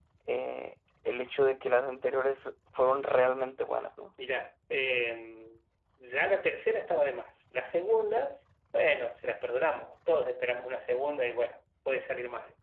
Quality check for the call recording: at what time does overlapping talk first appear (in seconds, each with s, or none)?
none